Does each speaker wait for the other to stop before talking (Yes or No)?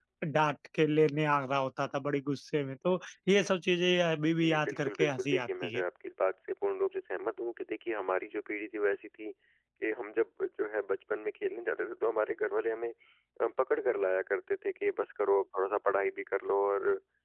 No